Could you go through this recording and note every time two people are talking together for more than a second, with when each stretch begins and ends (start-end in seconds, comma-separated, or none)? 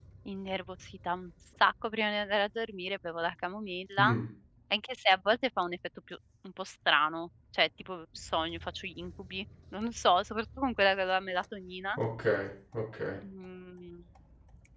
none